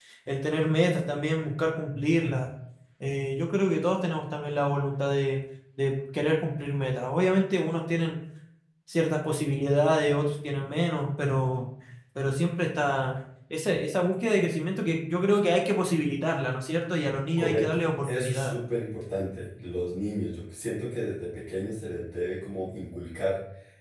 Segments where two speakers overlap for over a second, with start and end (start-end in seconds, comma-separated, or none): 17.4-18.6